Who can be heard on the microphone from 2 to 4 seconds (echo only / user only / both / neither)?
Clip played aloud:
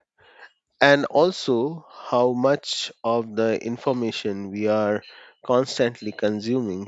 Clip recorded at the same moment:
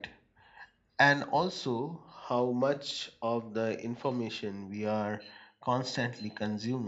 echo only